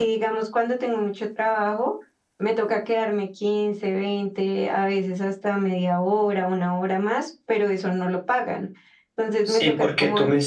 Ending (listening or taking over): taking over